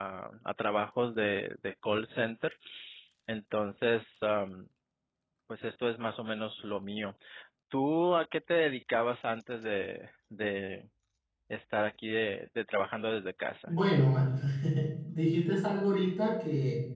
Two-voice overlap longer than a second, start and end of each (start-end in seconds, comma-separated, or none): none